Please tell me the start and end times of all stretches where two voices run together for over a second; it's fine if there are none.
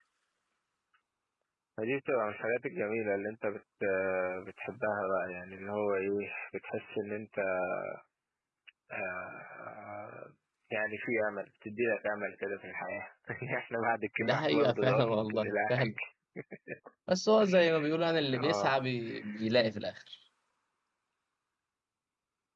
14.2-15.9

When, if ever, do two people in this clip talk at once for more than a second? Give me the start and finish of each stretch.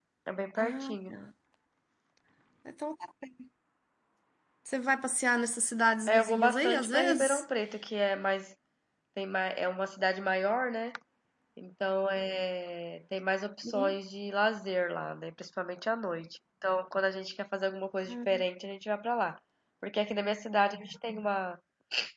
6.1-7.4

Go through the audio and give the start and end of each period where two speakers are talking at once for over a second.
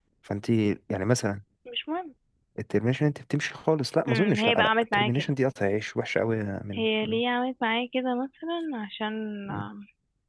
4.1-5.3

